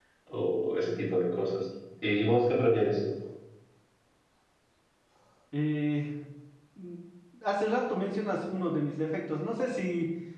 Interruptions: none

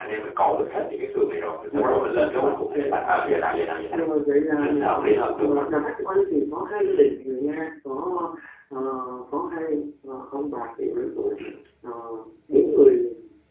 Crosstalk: present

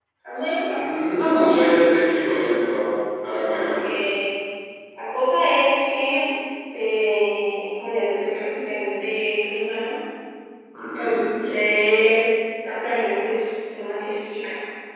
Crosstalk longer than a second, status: none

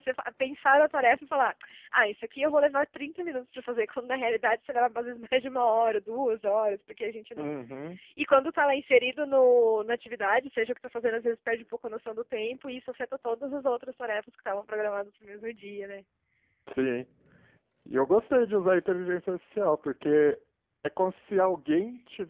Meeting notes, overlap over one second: none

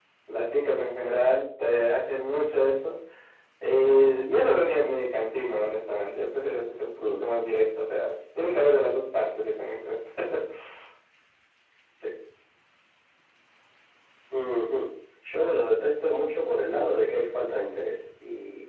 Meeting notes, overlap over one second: none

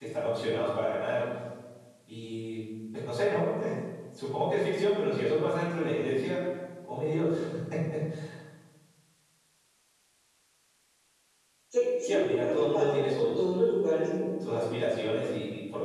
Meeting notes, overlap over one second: present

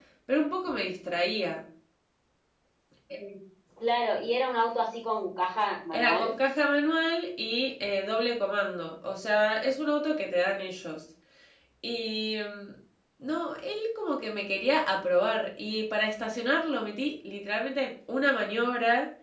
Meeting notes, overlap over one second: none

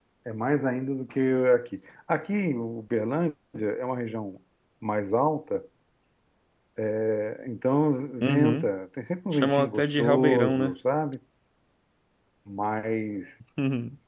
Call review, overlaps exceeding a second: present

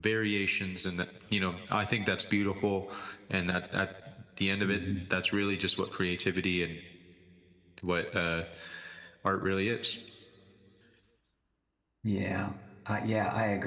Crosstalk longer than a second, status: none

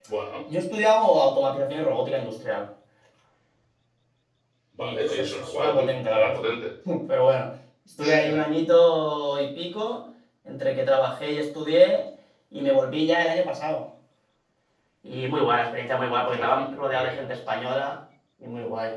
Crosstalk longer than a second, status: present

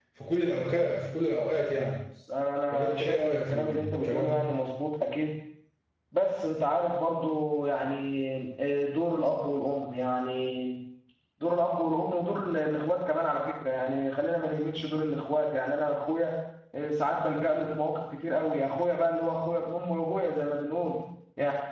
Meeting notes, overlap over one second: present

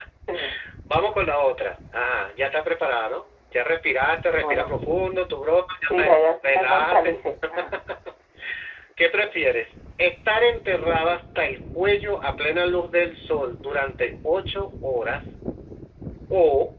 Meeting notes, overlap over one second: present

